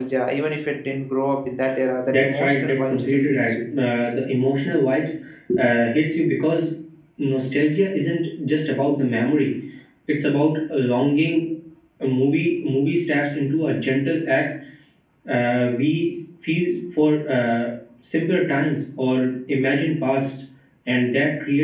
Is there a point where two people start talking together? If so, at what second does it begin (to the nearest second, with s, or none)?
2 s